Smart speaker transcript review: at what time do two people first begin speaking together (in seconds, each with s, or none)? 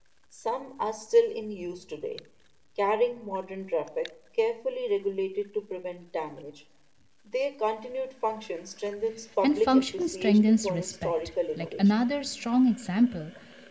9.4 s